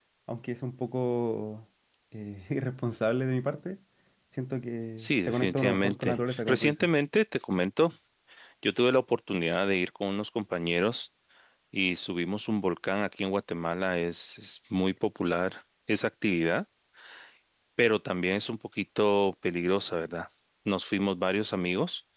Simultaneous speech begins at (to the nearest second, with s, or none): 5 s